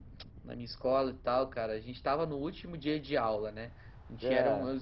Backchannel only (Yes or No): Yes